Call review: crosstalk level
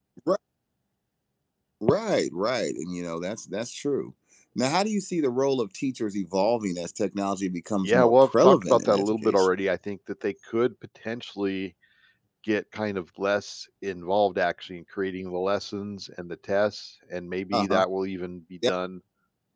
present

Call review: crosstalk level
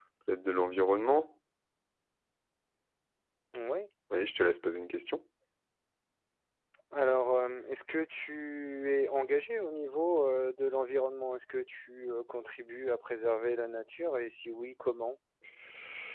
none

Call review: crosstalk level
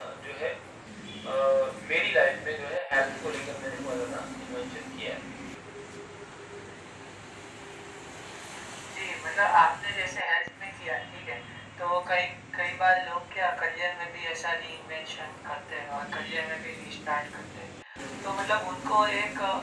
none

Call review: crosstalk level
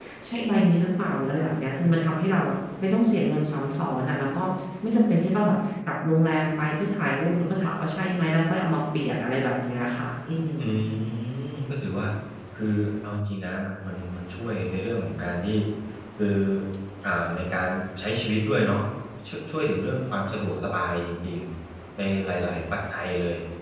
none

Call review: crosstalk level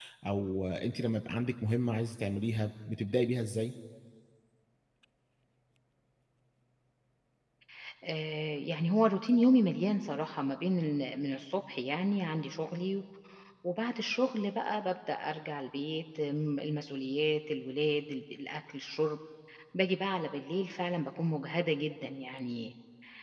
none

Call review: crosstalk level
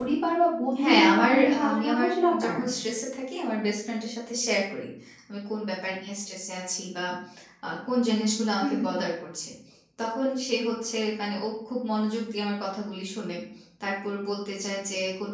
present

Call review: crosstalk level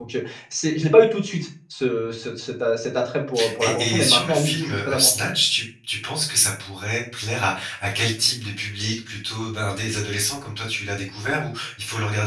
present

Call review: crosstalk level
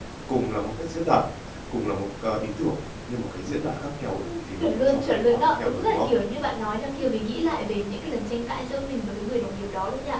present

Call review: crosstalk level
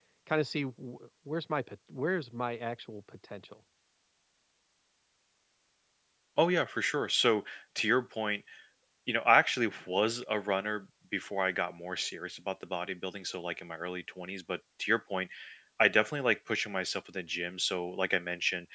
none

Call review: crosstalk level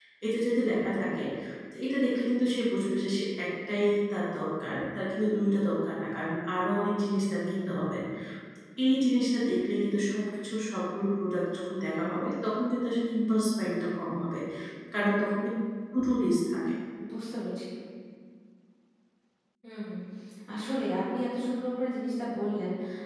none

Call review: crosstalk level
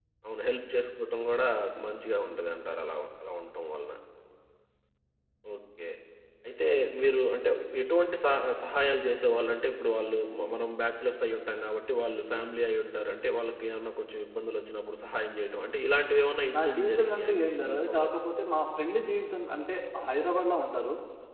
present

